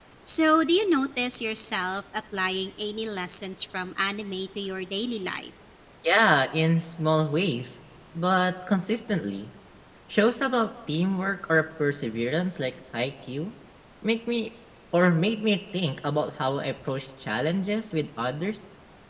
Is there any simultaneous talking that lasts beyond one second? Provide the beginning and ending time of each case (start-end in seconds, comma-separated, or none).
none